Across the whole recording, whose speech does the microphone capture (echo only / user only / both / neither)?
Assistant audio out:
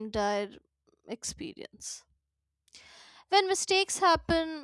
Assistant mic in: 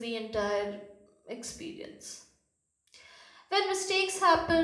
echo only